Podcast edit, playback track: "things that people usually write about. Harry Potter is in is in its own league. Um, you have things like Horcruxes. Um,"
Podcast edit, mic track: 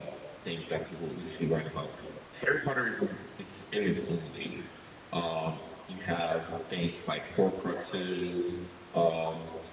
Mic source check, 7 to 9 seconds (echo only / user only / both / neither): echo only